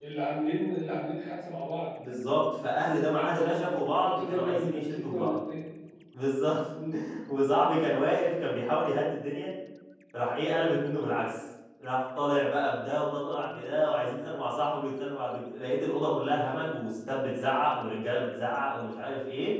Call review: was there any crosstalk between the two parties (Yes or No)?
Yes